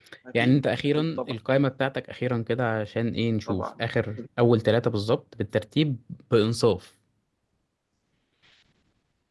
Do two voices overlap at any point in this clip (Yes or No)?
Yes